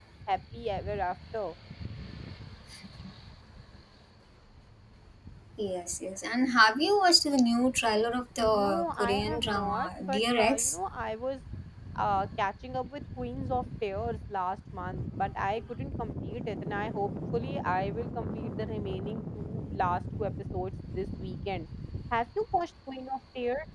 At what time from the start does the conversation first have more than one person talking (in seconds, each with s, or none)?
8.4 s